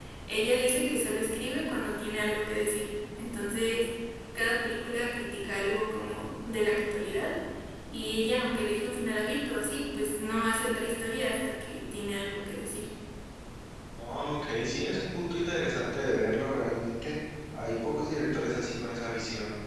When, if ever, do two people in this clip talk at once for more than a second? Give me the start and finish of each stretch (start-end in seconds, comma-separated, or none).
none